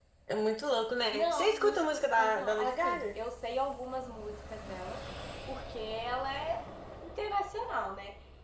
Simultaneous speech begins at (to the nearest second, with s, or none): 1 s